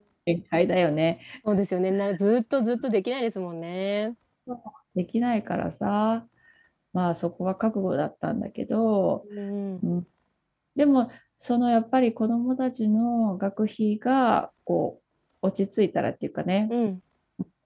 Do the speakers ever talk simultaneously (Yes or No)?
No